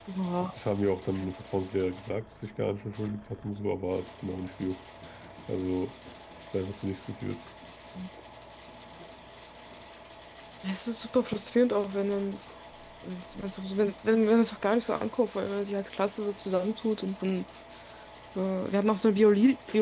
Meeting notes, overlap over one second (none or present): none